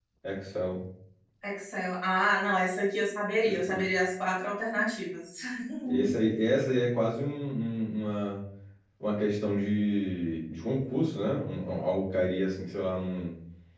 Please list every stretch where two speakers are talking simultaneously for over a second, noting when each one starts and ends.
none

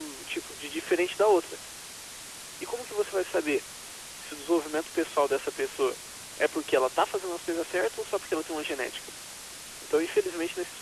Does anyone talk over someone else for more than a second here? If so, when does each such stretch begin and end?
none

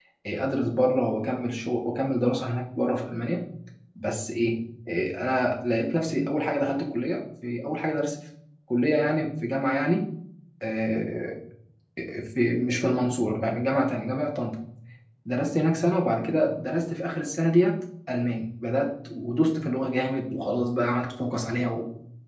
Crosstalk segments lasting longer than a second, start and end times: none

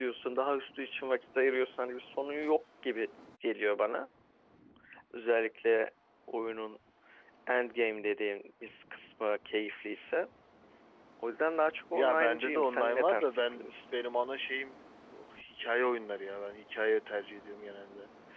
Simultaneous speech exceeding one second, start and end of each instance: 11.9-13.7

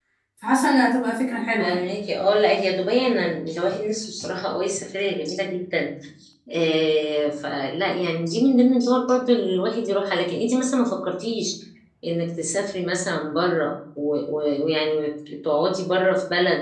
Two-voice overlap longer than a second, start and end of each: none

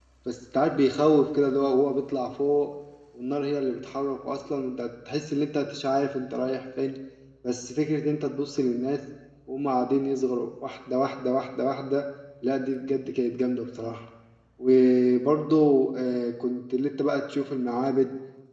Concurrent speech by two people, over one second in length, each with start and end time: none

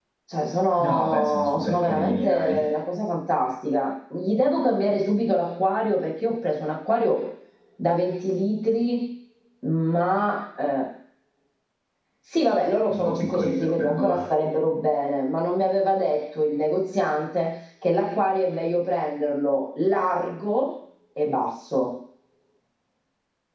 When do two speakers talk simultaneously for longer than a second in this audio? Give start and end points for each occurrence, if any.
0.8-2.7, 12.9-14.2

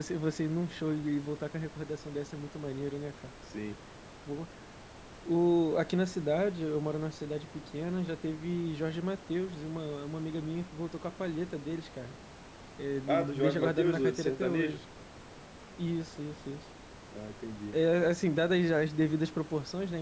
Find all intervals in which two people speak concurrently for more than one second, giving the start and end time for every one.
13.1-14.8

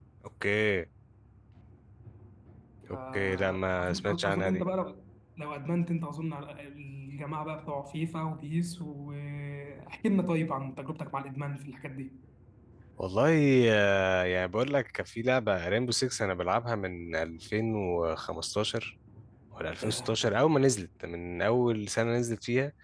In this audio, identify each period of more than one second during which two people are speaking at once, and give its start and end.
3.1-4.6

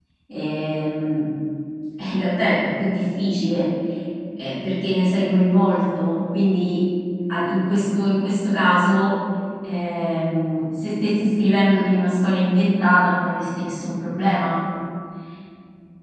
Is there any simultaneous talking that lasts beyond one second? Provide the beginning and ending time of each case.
none

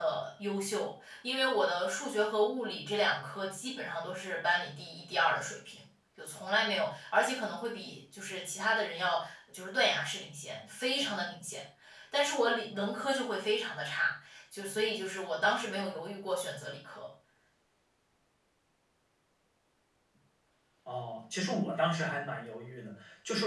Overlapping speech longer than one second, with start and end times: none

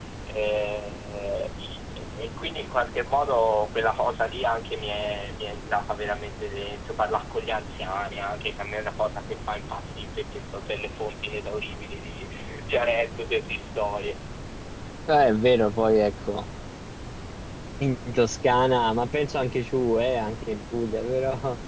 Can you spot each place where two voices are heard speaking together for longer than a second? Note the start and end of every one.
none

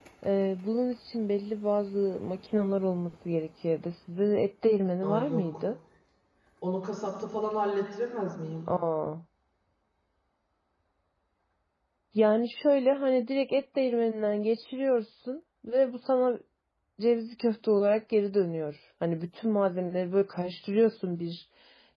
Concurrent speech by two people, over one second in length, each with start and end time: none

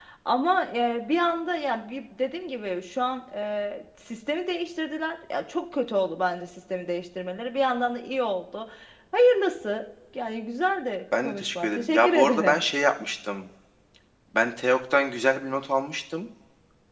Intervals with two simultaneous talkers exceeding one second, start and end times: 11.2-12.6

